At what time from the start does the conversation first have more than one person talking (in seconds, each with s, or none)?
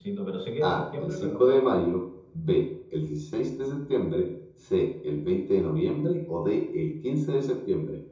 0.6 s